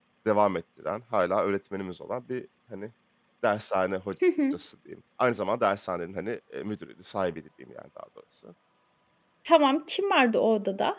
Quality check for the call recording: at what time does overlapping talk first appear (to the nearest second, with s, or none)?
none